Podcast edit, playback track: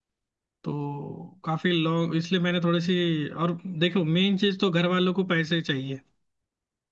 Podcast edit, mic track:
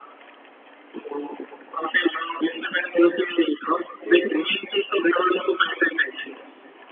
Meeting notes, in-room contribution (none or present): present